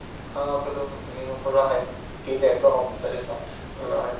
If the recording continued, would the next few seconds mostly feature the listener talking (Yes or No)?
No